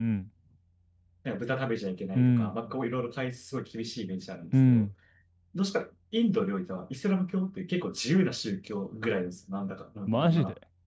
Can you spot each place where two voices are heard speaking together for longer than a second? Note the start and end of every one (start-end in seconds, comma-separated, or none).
none